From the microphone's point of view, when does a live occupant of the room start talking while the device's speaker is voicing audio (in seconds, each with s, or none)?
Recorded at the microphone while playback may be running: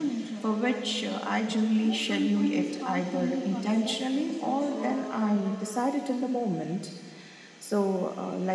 none